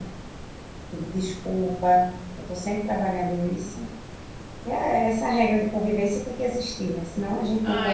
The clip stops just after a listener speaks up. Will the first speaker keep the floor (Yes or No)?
No